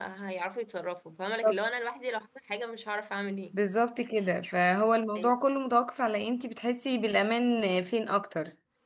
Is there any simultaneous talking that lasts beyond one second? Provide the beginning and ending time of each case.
none

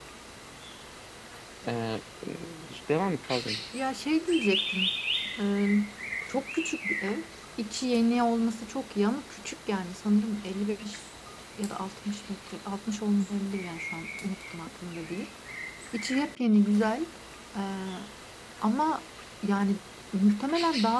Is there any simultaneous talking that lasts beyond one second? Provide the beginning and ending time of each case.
none

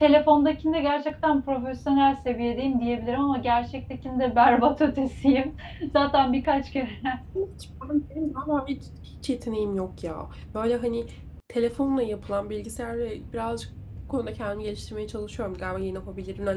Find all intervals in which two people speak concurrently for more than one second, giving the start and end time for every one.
none

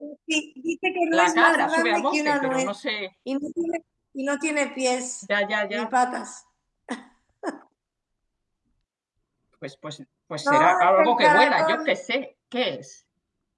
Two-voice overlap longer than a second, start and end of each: 1.2-2.7, 10.5-11.9

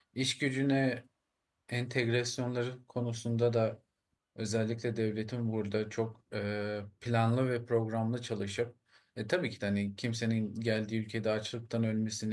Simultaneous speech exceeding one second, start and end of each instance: none

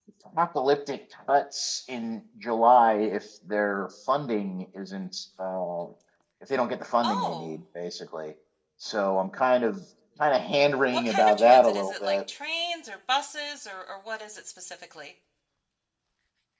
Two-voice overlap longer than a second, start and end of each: 10.9-12.2

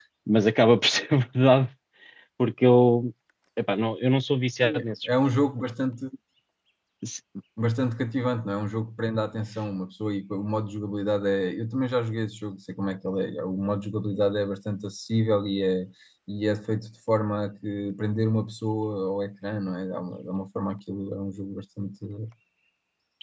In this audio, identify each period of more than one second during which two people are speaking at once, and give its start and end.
none

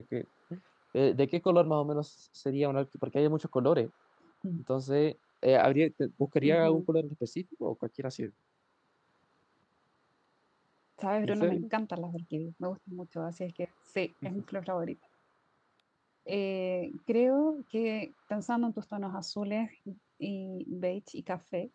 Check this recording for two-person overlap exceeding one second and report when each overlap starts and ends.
none

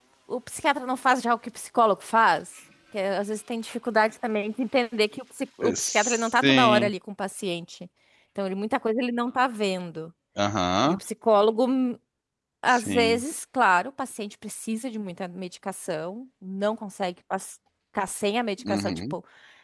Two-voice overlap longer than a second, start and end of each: 5.6-6.9

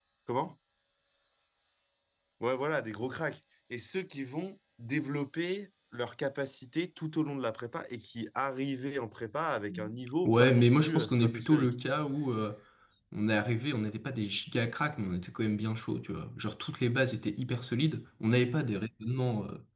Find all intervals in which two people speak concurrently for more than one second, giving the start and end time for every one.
10.2-11.7

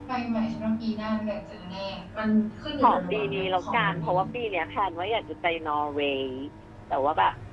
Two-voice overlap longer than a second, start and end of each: 2.8-4.1

